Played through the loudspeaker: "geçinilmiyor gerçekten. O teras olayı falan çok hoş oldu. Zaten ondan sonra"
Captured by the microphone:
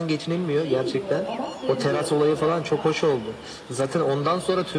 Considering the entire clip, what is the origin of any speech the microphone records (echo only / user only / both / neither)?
both